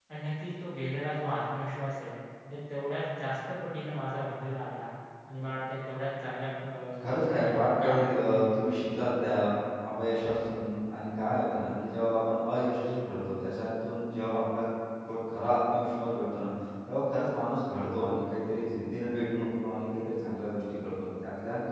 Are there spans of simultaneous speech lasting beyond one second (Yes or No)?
Yes